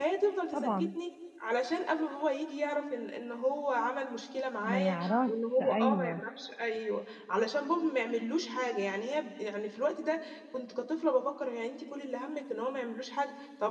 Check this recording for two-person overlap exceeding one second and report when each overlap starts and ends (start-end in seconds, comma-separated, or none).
4.6-6.2